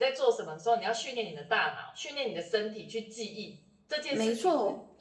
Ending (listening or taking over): listening